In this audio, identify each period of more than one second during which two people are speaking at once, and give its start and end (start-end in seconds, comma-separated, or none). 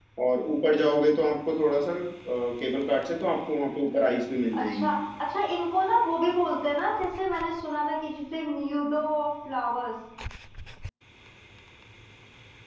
none